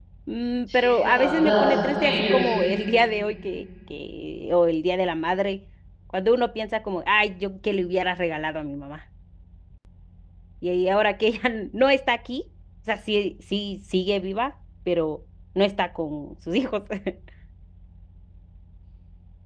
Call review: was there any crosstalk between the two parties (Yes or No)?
Yes